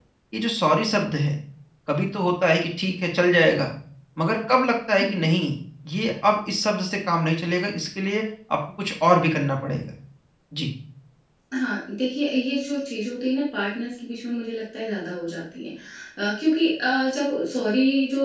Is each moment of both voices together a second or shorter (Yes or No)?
Yes